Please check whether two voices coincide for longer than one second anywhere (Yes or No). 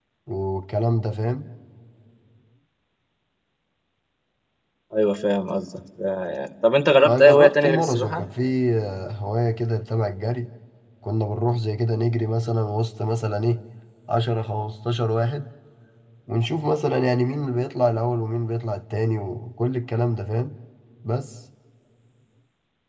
Yes